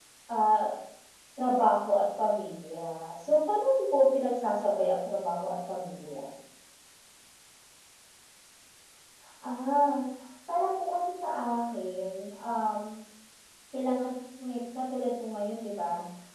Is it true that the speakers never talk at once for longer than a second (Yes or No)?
Yes